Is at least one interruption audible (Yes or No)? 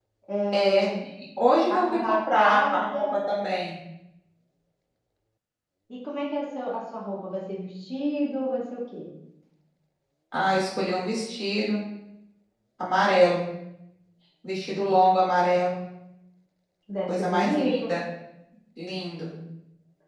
Yes